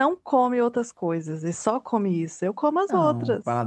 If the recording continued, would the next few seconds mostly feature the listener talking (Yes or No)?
Yes